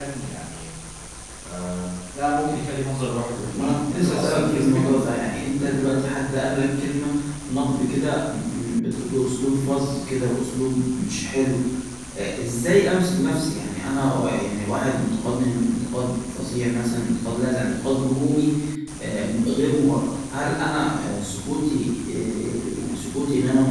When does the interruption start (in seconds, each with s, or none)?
3.5 s